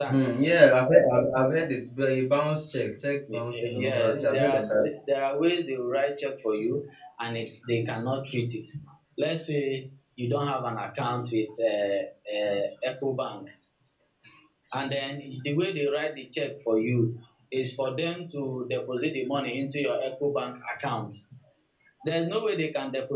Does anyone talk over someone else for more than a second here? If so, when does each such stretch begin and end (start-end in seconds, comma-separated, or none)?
3.3-4.6